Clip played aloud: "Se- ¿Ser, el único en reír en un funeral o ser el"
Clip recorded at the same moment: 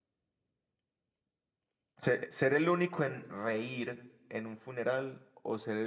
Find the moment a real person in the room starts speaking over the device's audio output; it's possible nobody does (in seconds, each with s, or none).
none